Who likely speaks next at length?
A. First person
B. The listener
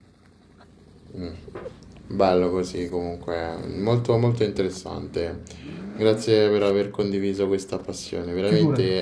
A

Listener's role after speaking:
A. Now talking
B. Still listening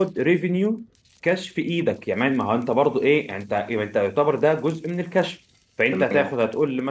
B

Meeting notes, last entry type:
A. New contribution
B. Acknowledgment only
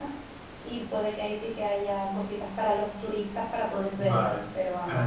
A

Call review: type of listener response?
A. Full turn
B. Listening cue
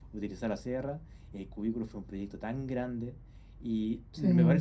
B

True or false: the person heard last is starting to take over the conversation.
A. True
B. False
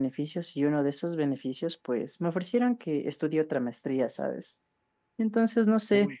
B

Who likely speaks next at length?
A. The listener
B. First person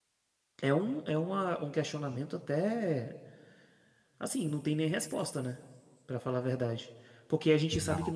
B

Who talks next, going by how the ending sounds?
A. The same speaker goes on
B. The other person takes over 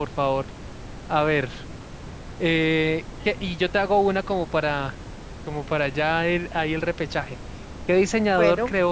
A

